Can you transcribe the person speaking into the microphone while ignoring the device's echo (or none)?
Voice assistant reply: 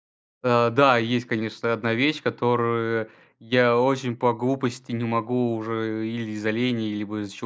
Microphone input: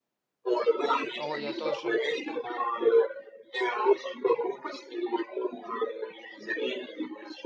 Ой, я тоже.